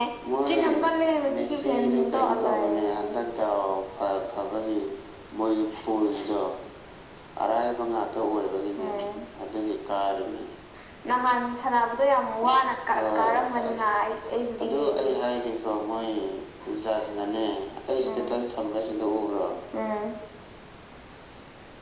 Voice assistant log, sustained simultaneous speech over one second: present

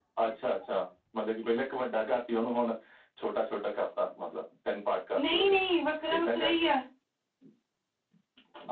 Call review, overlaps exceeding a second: none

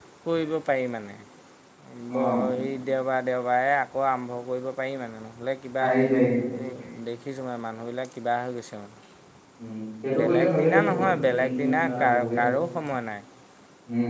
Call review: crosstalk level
present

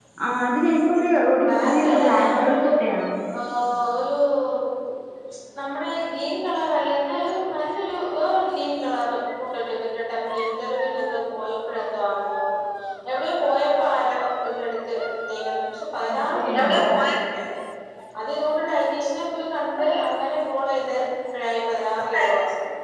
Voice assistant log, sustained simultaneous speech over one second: present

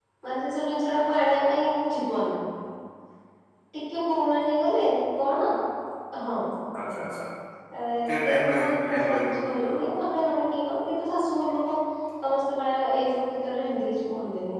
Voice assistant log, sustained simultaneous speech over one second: present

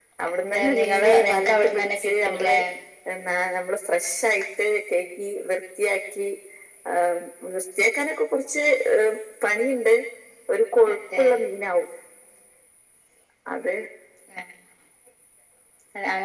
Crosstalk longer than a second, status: present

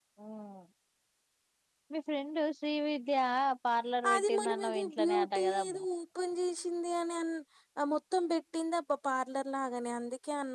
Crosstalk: present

